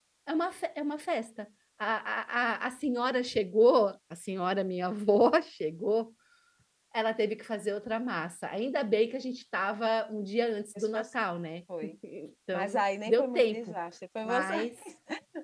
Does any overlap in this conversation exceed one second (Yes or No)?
Yes